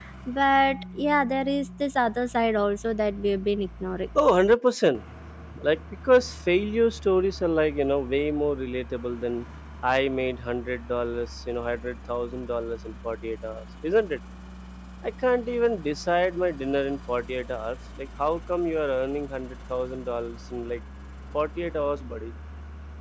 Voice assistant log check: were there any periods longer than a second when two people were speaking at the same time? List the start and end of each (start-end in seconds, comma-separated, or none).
none